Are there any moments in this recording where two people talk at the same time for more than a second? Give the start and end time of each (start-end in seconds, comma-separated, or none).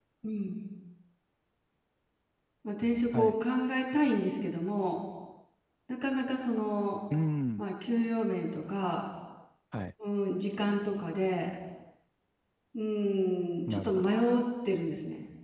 none